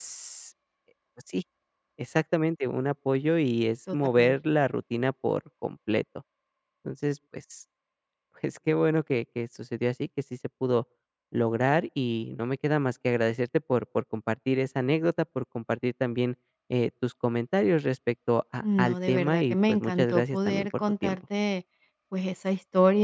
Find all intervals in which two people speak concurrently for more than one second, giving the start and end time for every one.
18.6-21.2

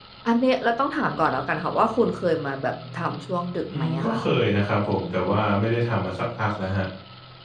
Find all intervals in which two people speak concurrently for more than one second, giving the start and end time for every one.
none

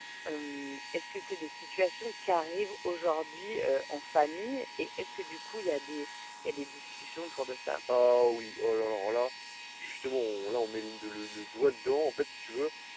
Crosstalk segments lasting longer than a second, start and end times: none

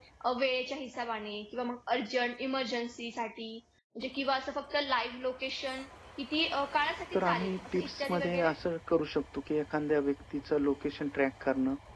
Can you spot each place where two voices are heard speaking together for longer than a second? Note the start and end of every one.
7.1-8.5

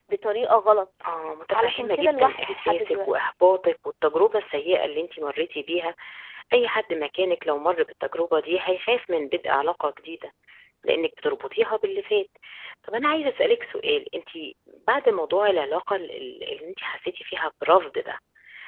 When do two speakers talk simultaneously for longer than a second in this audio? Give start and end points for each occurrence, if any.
1.5-3.1

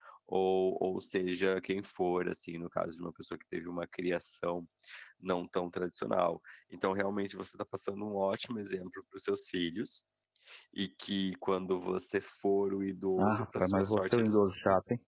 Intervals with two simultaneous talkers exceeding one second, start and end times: 13.2-14.6

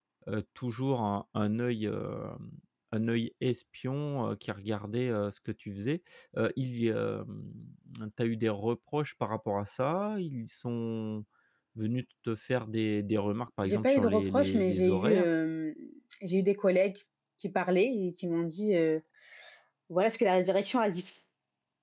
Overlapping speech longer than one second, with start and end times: 13.6-15.3

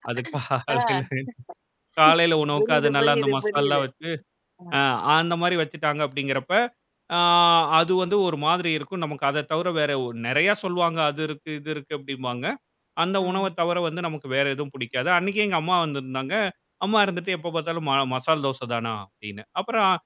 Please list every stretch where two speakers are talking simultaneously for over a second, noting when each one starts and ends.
2.5-3.8

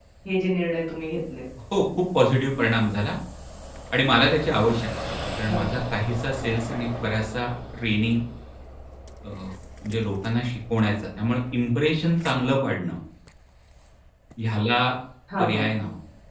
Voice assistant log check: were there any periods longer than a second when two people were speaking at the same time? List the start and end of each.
none

